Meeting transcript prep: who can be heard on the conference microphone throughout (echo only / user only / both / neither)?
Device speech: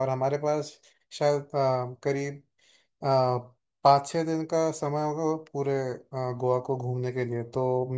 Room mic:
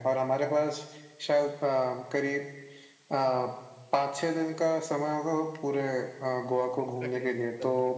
both